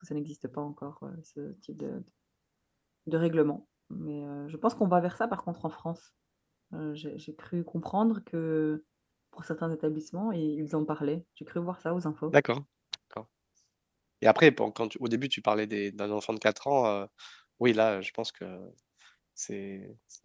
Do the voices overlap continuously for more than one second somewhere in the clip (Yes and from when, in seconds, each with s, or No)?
No